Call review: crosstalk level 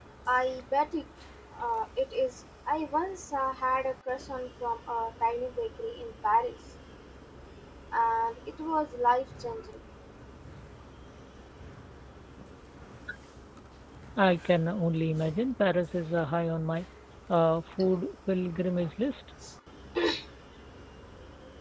none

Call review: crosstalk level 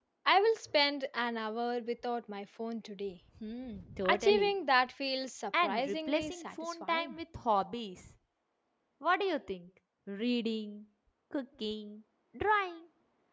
present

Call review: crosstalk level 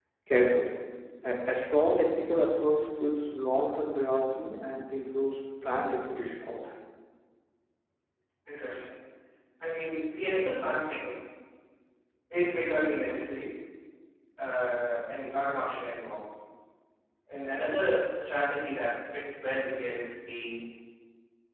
none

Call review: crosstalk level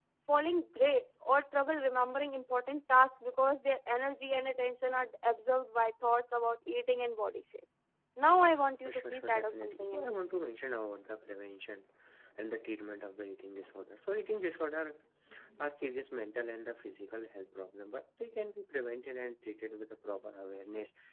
present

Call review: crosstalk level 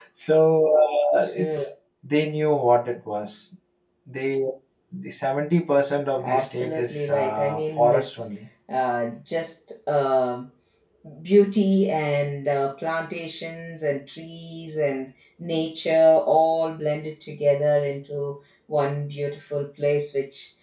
present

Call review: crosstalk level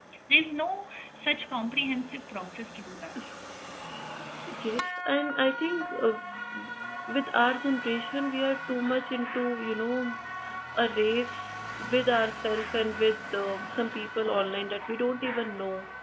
none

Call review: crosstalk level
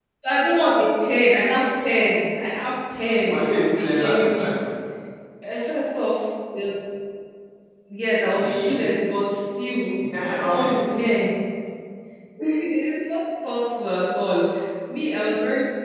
present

